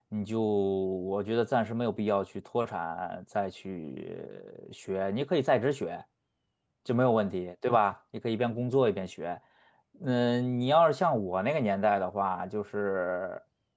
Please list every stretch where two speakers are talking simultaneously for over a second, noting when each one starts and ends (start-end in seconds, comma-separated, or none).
none